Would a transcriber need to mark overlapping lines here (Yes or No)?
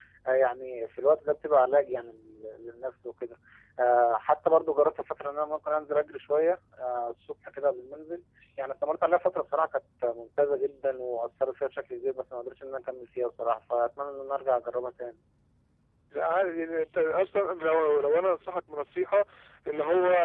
No